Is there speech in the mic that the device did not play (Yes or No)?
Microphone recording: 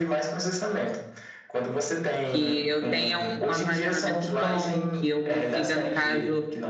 Yes